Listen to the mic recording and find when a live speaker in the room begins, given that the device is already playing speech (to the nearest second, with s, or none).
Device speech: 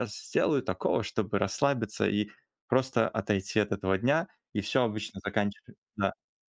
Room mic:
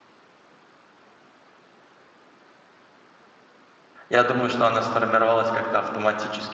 4 s